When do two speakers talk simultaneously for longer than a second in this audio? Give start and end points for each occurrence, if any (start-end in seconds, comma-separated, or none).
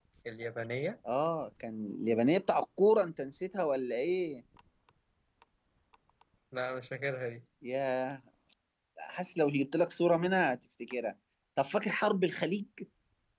none